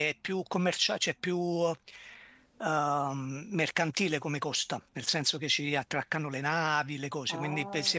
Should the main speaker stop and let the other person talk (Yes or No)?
Yes